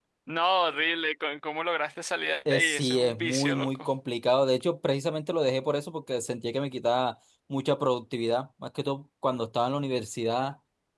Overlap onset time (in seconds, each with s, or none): 2.5 s